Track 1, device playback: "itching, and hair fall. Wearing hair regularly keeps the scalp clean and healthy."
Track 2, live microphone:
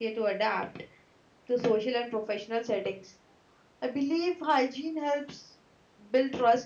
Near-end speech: present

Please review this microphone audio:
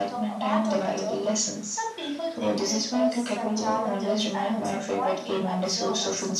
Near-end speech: present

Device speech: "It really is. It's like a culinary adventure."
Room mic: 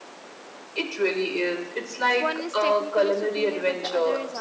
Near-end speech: present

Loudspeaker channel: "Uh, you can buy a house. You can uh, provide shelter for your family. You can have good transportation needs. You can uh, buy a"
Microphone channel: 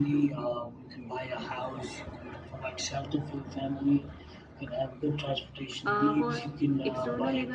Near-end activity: present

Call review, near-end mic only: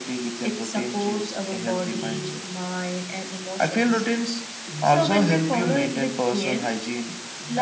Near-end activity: none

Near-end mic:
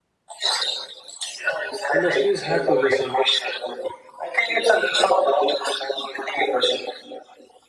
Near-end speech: present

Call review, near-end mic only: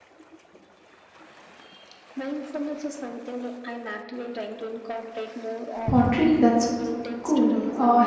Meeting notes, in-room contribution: present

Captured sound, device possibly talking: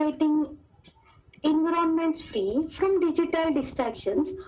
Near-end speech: none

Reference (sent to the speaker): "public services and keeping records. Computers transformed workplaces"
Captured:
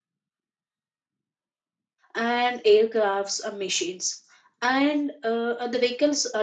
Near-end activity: present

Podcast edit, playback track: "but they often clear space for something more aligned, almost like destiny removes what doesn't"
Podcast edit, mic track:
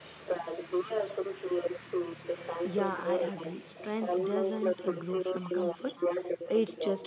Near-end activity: present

